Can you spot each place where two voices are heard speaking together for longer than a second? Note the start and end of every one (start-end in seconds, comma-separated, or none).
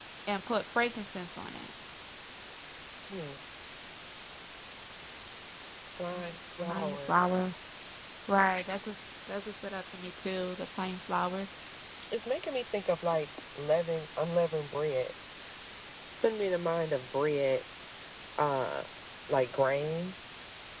none